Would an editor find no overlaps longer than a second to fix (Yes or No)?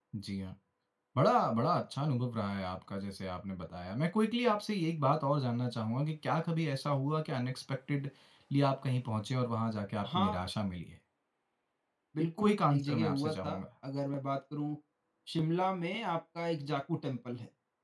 No